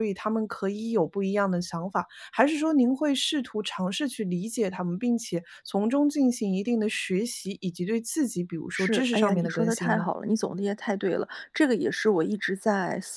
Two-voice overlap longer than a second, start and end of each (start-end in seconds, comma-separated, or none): 8.7-10.1